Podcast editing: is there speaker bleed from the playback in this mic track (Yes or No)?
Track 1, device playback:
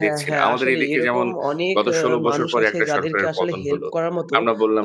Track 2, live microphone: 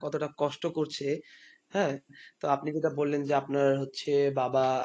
No